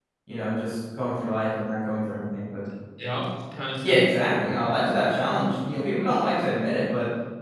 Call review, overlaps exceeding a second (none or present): present